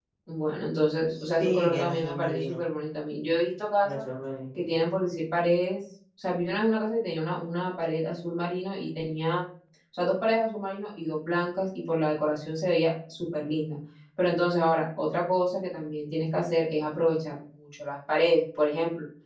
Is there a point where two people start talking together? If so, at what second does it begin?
1.2 s

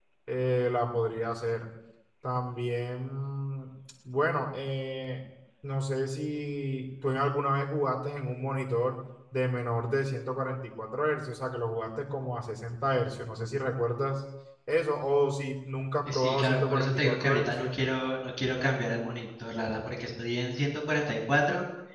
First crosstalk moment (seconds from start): 16.1 s

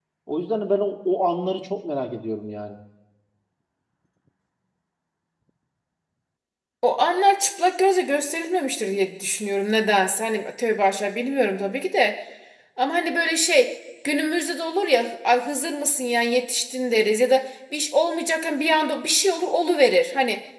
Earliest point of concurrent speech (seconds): none

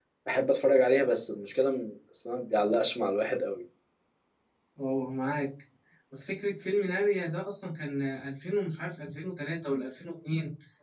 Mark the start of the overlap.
none

